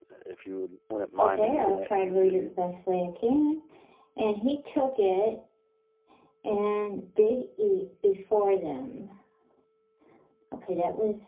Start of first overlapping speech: 1.2 s

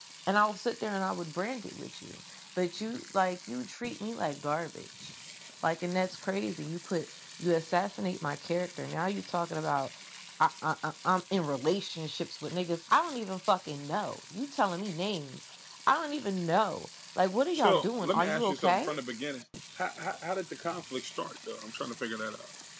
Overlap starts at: 17.5 s

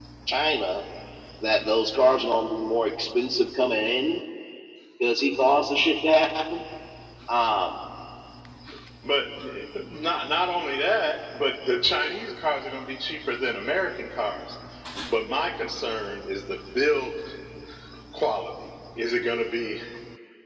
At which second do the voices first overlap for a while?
none

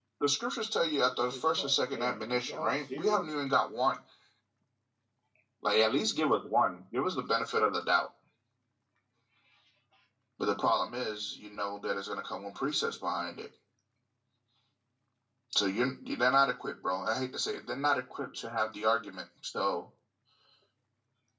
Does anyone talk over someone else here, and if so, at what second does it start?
1.1 s

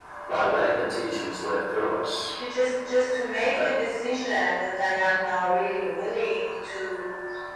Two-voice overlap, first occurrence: none

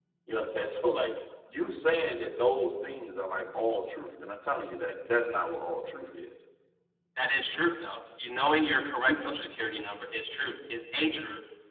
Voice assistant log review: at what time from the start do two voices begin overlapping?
none

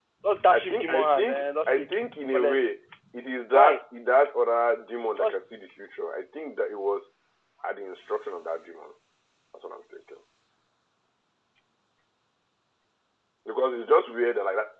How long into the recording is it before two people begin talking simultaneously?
0.5 s

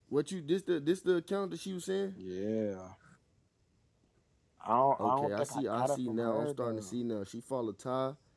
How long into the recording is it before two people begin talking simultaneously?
5.0 s

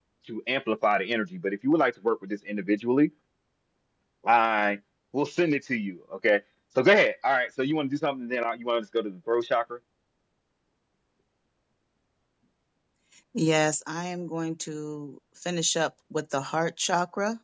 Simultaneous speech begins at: none

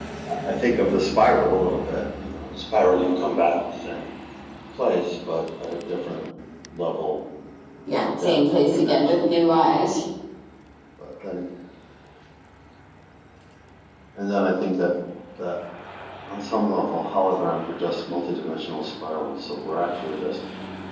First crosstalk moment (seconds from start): 7.9 s

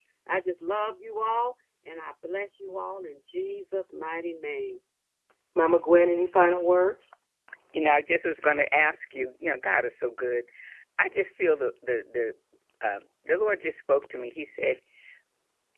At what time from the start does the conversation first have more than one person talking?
none

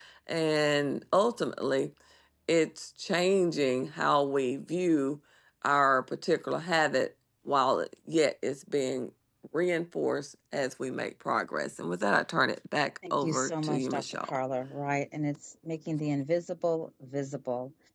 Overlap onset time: 13.0 s

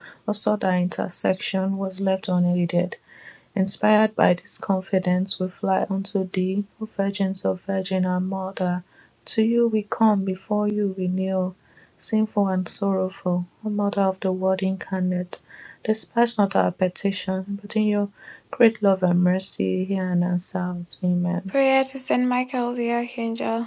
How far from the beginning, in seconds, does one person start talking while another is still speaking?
none

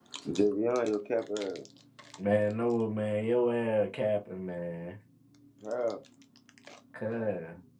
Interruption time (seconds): none

